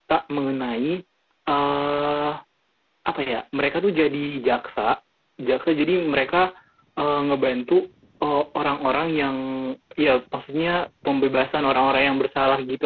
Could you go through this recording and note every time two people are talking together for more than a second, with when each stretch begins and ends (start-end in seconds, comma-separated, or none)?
none